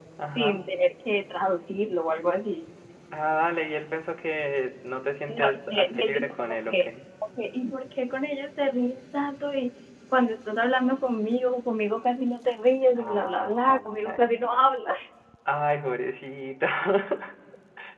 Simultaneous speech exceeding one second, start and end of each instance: 5.3-6.9, 13.0-14.2

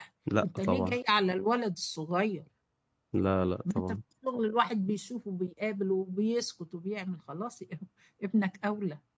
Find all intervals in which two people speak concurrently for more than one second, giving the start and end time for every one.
none

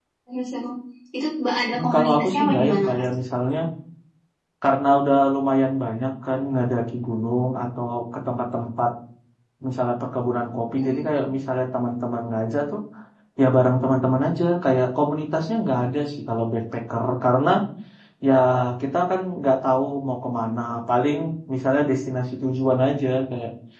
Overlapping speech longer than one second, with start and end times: 1.7-3.0

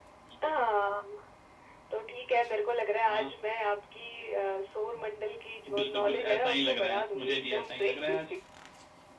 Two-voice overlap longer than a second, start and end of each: 5.7-7.9

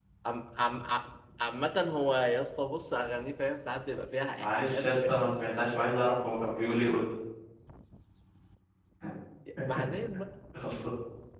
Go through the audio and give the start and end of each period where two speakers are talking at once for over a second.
4.4-5.7

